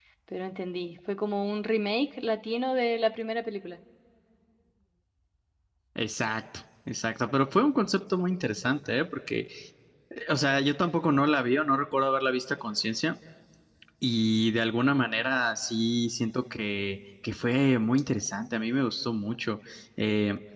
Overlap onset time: none

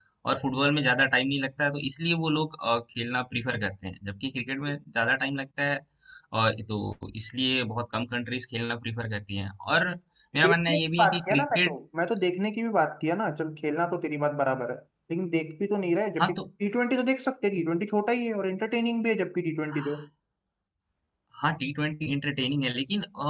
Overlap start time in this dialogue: 10.4 s

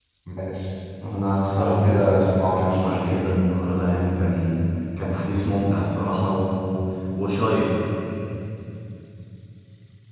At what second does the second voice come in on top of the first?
1.5 s

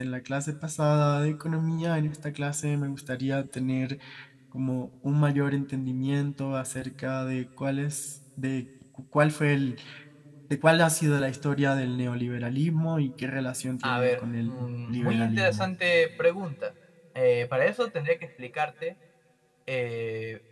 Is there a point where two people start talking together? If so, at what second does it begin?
13.8 s

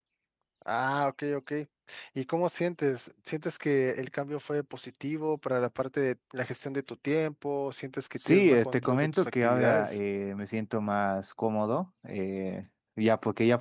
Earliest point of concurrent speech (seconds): 8.2 s

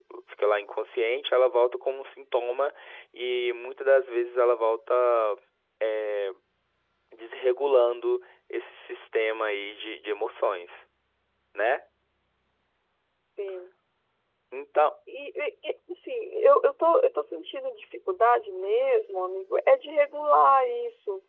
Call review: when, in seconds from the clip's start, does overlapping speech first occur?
none

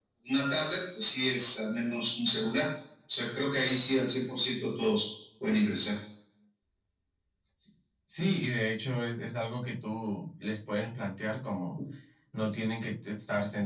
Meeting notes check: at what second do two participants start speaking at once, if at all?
none

